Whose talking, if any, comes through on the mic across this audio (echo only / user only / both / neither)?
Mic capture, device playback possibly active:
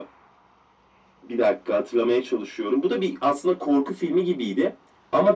echo only